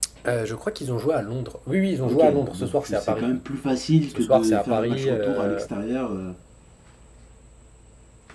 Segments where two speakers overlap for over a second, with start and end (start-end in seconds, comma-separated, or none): 2.0-3.3, 4.1-5.7